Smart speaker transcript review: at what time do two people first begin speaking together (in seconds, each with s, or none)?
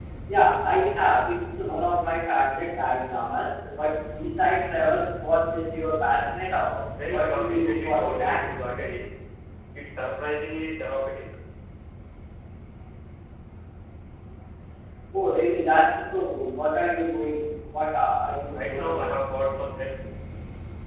7.1 s